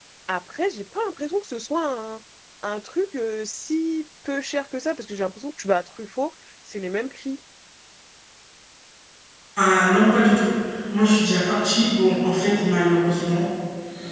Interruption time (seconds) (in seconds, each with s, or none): none